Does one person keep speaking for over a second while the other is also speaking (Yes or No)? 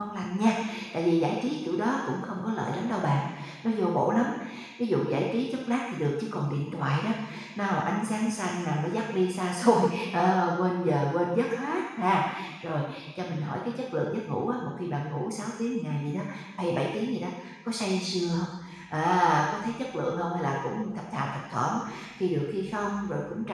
No